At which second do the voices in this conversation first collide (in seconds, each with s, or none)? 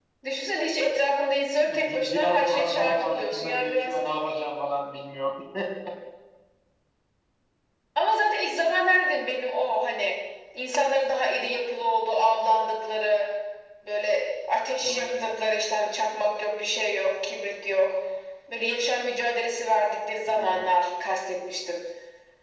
1.7 s